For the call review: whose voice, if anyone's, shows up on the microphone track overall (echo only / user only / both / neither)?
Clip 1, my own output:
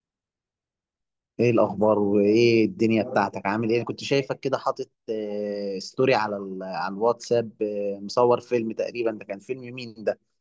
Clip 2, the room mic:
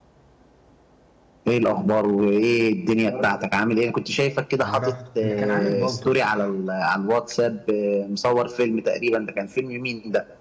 both